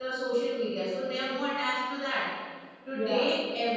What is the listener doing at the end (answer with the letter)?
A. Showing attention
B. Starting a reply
A